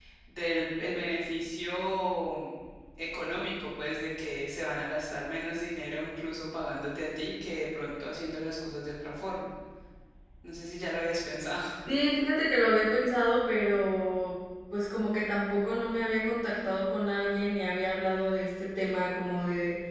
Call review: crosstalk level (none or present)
none